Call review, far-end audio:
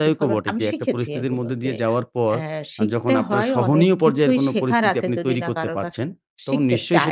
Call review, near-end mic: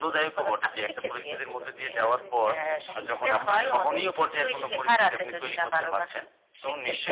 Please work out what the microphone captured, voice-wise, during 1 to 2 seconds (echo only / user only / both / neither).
both